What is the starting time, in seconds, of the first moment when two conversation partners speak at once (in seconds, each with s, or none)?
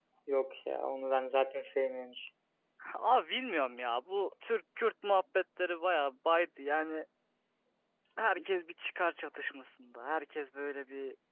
none